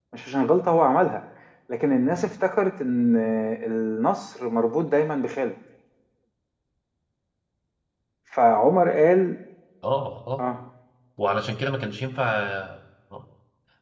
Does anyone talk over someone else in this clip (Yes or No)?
No